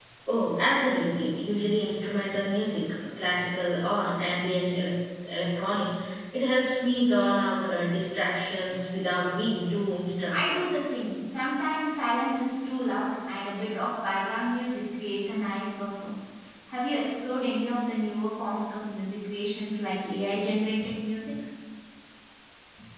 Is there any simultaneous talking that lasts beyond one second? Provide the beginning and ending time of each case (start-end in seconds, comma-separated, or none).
none